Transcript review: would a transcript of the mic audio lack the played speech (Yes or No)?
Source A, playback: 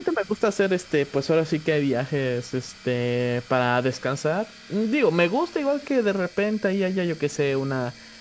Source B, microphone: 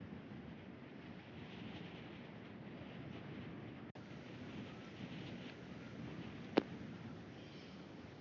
Yes